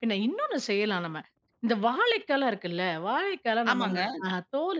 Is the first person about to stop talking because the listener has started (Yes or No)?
No